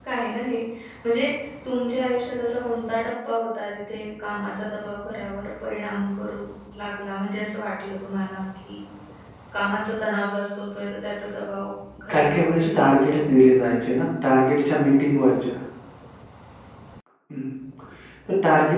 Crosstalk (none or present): present